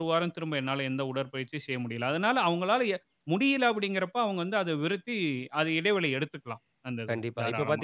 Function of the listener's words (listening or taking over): taking over